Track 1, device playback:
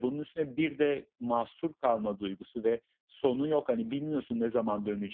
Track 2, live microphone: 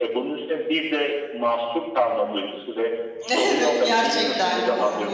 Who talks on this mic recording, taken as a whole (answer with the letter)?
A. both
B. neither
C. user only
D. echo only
A